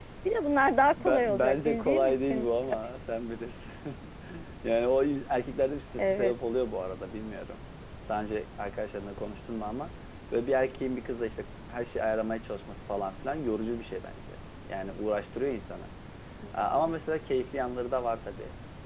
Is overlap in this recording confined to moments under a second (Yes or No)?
No